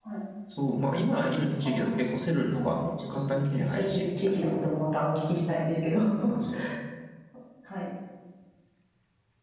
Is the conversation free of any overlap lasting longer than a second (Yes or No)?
No